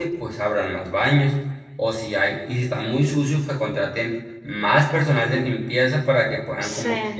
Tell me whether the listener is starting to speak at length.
No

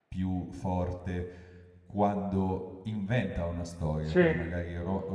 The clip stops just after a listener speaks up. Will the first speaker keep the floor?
Yes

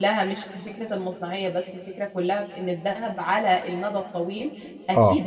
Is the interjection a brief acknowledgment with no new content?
Yes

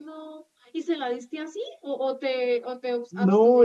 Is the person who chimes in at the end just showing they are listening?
No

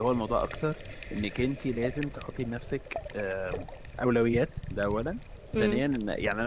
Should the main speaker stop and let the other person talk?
No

